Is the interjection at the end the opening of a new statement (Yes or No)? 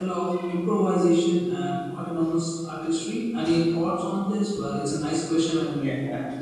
Yes